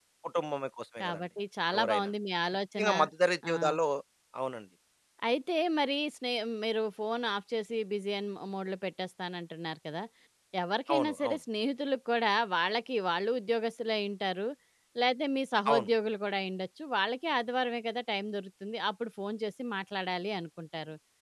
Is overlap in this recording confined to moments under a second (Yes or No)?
Yes